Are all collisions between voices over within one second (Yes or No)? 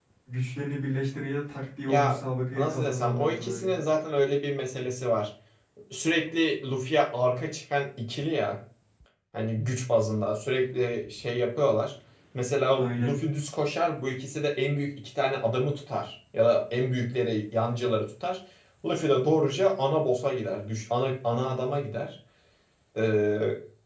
No